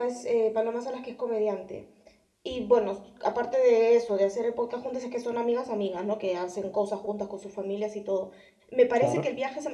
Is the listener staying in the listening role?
Yes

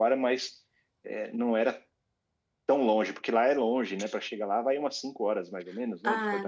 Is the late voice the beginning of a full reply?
Yes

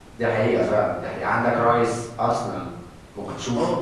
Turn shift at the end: Yes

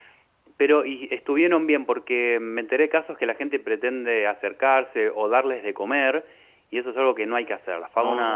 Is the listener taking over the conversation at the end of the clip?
No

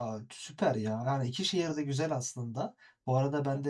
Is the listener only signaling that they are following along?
Yes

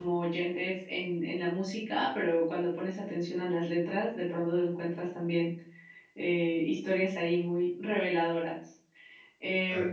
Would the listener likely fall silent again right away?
Yes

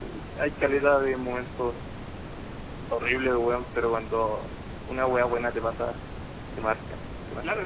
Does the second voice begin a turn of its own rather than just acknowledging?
Yes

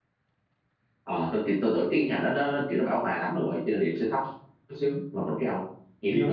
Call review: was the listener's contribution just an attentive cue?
No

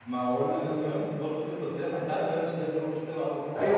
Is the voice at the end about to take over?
Yes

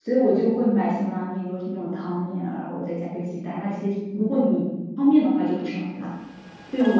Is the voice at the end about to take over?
Yes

